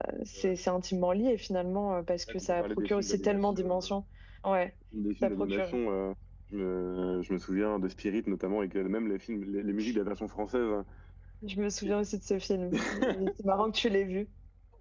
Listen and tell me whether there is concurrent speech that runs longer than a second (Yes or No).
Yes